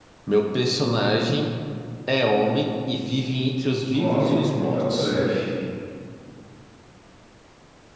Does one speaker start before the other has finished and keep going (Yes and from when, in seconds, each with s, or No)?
Yes, from 3.9 s